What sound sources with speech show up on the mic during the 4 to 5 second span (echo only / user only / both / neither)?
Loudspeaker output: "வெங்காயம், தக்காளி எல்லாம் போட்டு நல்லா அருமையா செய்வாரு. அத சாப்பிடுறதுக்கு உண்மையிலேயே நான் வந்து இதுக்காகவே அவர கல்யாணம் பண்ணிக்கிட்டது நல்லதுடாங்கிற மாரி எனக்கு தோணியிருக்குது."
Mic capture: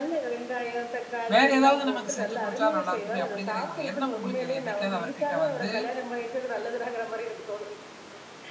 both